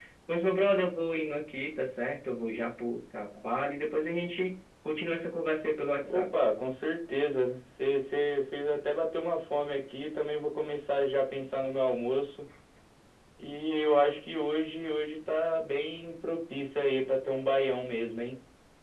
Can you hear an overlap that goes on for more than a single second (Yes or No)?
No